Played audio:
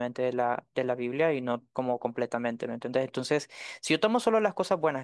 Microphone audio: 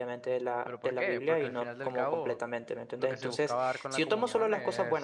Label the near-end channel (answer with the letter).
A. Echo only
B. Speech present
B